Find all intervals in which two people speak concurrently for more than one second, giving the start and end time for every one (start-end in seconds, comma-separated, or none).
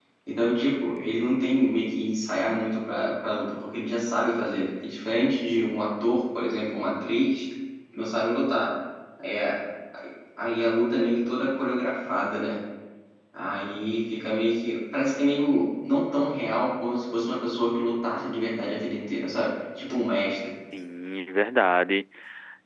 none